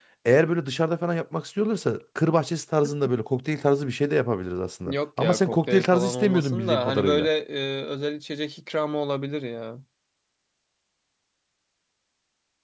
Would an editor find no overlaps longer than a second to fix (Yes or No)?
No